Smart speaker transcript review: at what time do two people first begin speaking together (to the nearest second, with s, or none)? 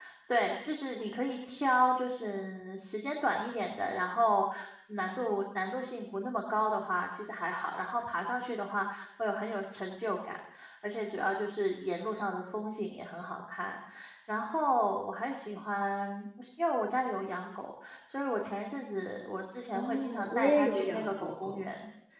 20 s